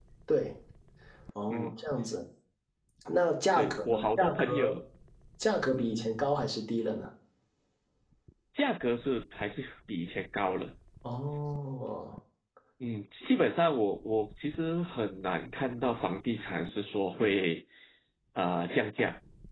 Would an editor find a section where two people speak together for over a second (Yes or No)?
Yes